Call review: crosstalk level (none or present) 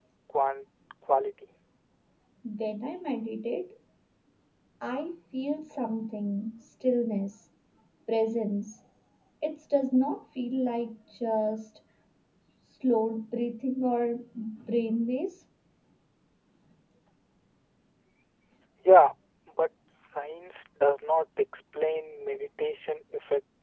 none